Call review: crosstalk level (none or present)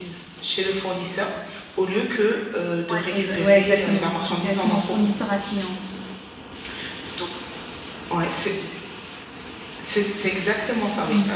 present